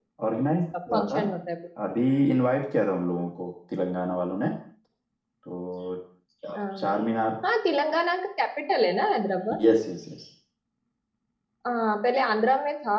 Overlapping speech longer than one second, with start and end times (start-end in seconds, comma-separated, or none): none